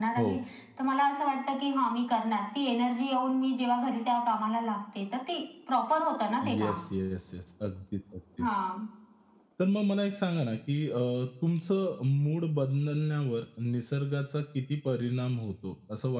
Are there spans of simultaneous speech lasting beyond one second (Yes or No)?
No